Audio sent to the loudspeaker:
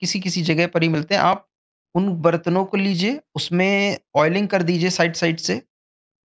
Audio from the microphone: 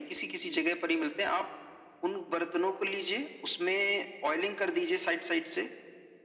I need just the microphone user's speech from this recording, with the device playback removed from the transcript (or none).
none